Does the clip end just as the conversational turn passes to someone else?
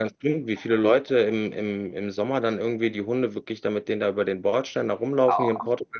No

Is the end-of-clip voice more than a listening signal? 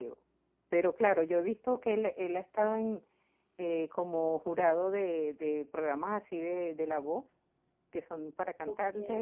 No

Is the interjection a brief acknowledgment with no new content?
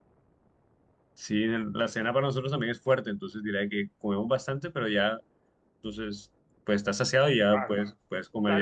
No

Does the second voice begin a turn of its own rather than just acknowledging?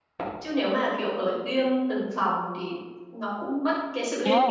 Yes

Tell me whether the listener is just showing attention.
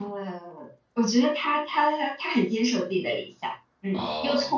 Yes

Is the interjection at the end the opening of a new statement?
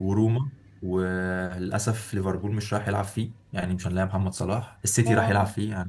No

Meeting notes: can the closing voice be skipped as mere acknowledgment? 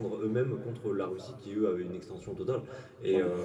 Yes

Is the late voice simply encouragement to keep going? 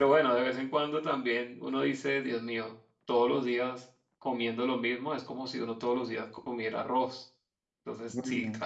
Yes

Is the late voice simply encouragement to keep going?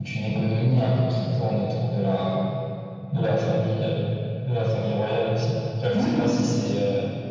Yes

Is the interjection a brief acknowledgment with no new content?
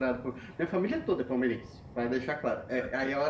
Yes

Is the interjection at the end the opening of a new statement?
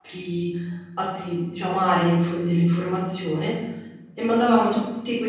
No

